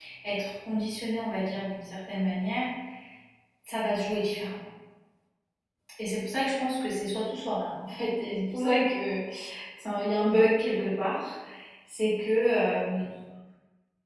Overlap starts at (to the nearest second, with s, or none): none